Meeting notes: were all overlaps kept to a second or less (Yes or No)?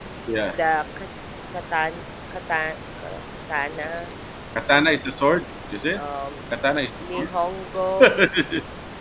Yes